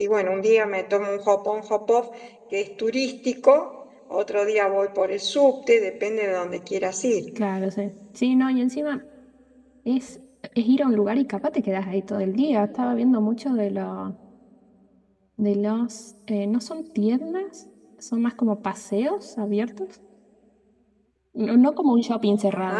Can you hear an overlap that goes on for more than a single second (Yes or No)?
No